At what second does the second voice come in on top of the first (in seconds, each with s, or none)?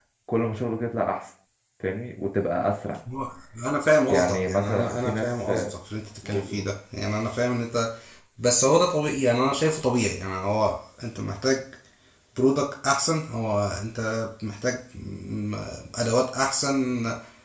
4.1 s